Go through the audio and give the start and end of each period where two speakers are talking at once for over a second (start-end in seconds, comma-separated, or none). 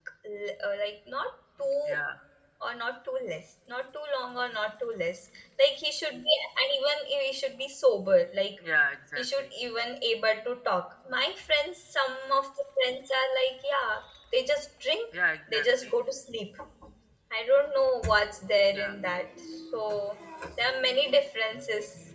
none